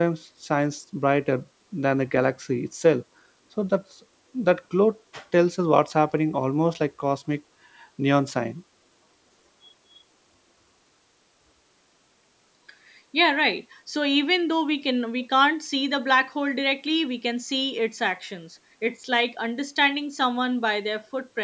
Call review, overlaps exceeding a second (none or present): none